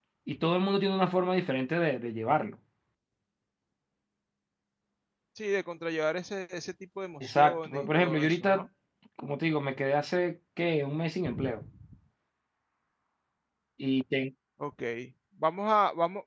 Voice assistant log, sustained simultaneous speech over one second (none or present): present